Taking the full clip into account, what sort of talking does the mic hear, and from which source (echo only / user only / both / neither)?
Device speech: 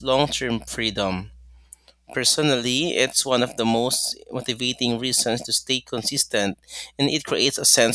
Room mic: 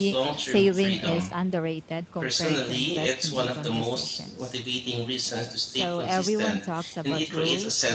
both